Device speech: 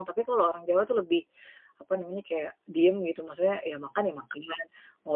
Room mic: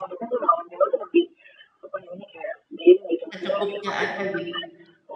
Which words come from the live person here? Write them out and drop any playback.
Secukupnya aja gitu.

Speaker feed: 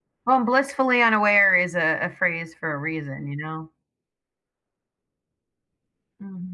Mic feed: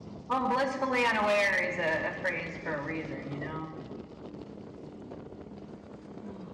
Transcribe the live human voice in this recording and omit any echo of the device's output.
none

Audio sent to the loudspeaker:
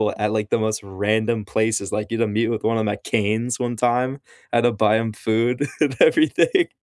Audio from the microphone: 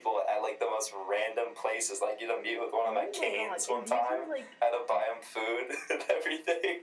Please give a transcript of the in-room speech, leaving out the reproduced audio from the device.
Oh my god, and these are, like,

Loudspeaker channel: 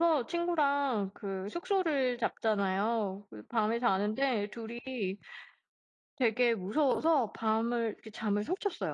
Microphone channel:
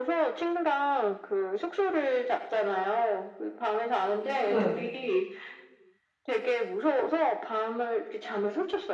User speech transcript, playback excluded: 네.

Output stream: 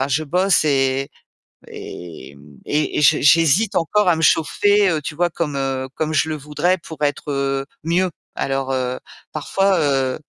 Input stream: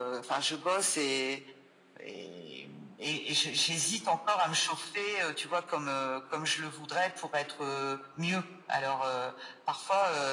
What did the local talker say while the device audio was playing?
none

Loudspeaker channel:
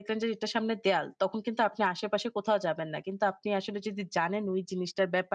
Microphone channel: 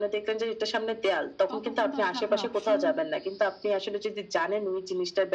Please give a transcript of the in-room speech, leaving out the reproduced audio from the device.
তত কিন্তু আসলে আপনার option

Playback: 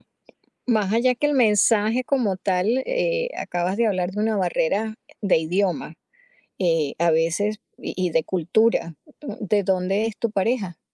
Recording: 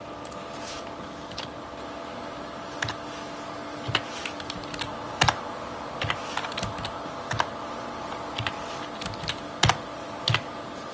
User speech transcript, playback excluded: none

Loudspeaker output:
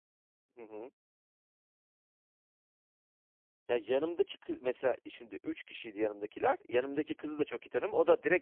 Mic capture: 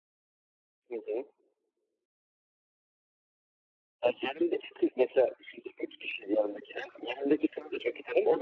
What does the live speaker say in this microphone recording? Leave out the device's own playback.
none

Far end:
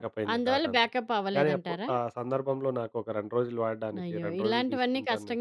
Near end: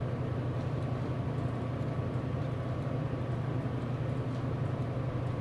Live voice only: none

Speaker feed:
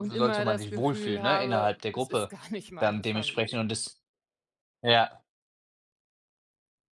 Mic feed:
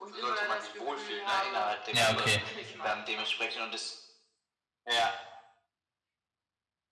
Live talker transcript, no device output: Ja, okay.

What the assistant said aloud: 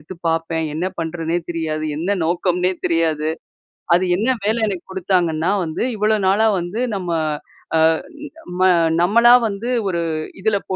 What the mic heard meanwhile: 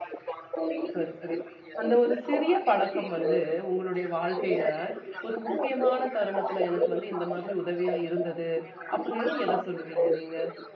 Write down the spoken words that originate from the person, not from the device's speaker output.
சரி, சரி. அந்த ஒரு சிறிய பழக்கம் வந்து உங்களுடைய வாழ்க்கையில ஒரு முக்கியமான தருணத்துல "எனக்கு வந்து இந்த மாதிரி உதவியா இருந்தது" அப்பிடின்னா எத சொல்லுவீங்க நீங்க?

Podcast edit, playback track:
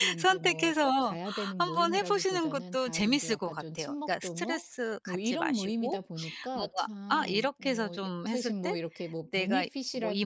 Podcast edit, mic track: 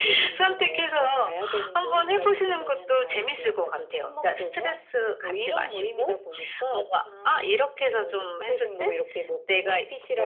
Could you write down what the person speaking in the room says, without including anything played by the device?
none

